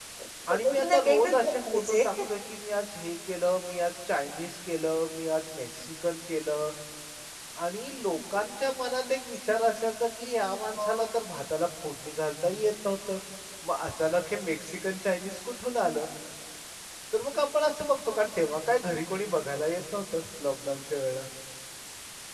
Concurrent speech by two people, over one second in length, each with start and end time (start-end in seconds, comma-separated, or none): 0.5-2.0